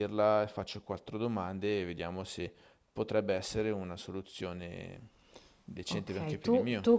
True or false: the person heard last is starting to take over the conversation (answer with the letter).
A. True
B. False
A